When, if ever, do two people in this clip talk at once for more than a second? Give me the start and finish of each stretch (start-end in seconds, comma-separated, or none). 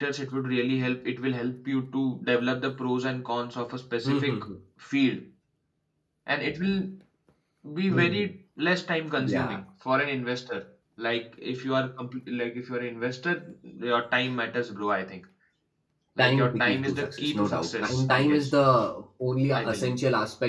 16.2-18.5